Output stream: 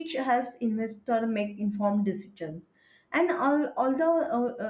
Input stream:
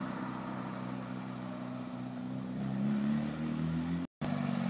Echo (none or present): none